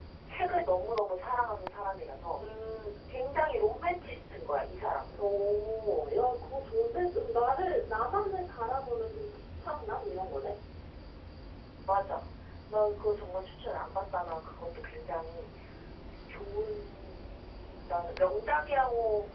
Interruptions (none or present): none